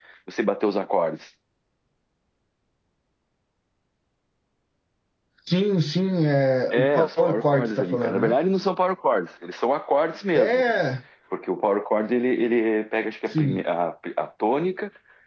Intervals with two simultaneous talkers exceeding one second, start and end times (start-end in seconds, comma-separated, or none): 6.7-8.4